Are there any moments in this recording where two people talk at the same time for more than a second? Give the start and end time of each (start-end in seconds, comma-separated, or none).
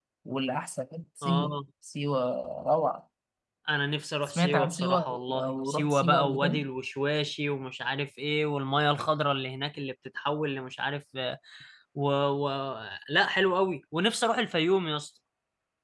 4.2-6.6